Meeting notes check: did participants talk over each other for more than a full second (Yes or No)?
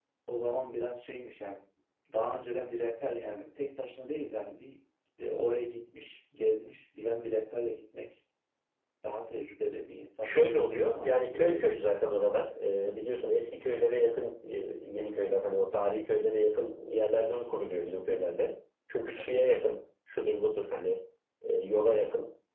Yes